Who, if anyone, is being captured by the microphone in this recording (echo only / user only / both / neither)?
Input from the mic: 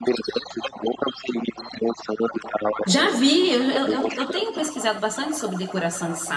both